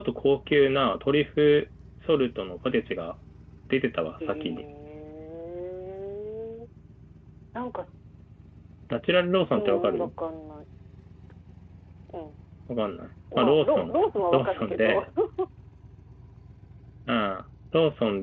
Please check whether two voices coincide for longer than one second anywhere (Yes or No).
Yes